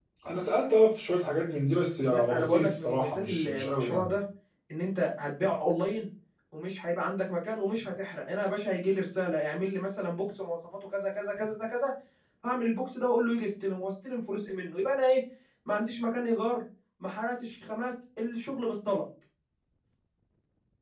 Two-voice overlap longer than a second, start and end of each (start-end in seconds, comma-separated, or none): 2.1-4.1